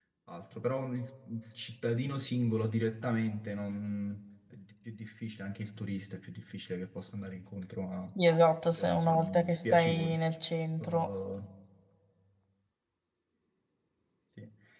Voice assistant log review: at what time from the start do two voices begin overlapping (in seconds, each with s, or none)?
8.7 s